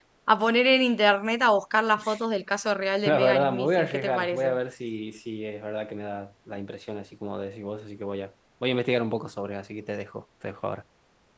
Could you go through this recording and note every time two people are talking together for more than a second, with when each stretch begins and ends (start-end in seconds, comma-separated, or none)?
3.0-4.5